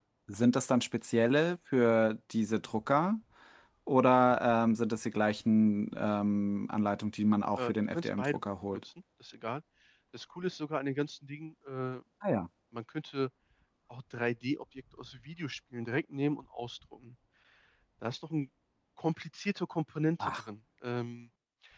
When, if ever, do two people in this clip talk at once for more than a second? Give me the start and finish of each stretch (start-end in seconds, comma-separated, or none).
7.6-8.8